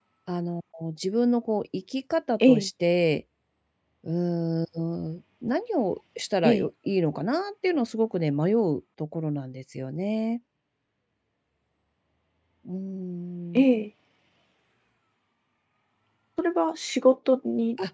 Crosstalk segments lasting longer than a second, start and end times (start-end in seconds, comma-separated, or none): none